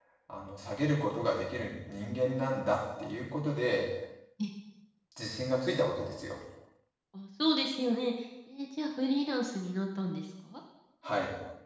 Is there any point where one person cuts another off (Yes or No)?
No